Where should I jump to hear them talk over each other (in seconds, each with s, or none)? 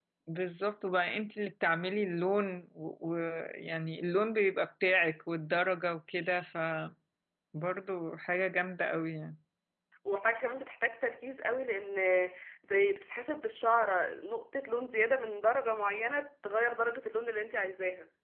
none